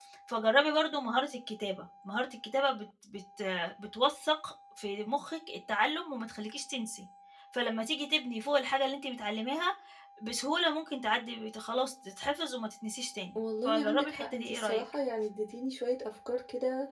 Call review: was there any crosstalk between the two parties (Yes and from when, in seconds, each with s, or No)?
Yes, from 13.6 s